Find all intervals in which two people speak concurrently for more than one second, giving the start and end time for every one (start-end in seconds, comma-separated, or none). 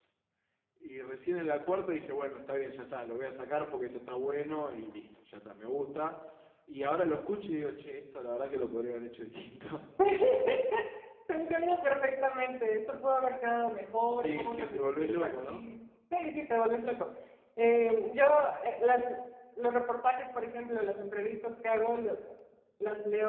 14.2-15.6